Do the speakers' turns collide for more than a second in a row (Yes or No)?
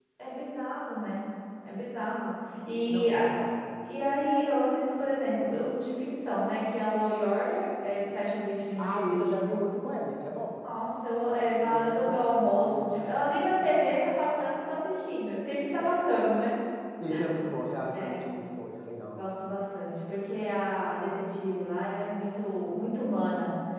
Yes